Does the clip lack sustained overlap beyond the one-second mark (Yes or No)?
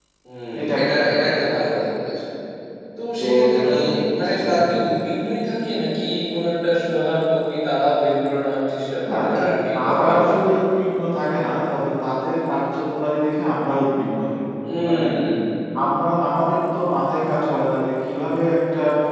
No